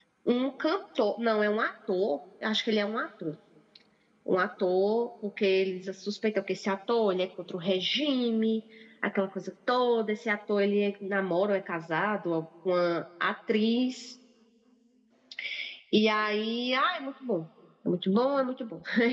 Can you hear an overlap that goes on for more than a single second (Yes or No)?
No